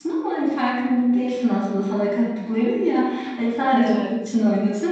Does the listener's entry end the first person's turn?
No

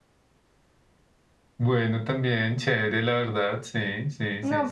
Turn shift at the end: Yes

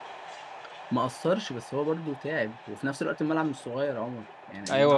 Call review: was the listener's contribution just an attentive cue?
No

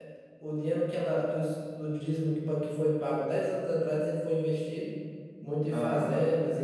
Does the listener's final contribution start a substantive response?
No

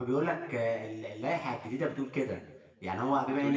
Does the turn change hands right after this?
No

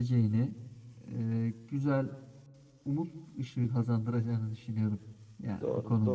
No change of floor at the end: No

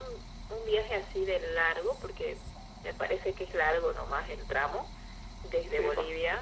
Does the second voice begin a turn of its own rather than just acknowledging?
No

